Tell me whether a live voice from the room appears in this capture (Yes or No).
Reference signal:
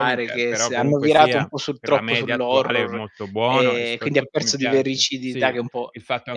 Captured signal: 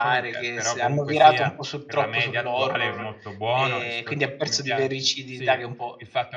No